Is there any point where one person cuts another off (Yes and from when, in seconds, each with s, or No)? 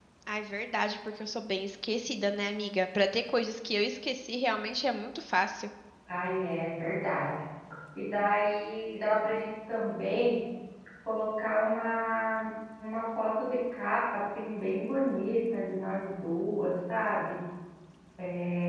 No